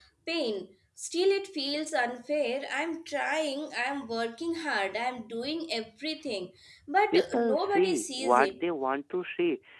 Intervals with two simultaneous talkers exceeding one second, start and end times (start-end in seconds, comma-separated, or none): 7.1-8.6